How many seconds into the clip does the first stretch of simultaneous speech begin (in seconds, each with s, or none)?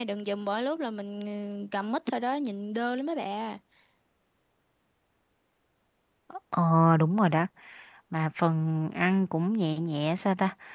none